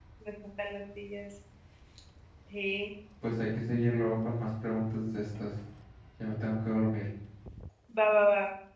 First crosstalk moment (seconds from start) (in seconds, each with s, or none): none